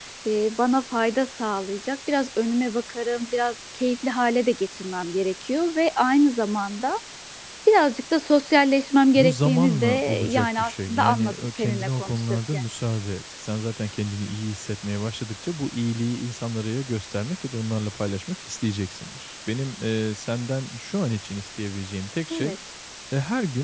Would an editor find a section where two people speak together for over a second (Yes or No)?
Yes